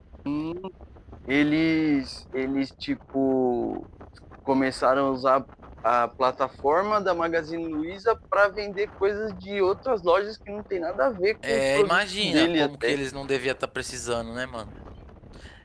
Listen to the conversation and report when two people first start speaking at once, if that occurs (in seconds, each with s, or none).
11.4 s